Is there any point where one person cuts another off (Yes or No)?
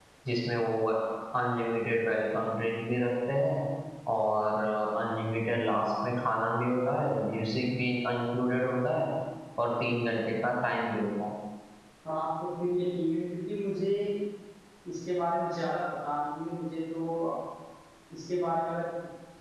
No